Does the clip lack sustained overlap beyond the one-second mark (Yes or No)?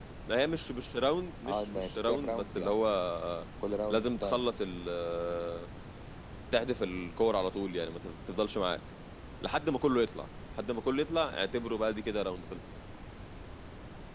No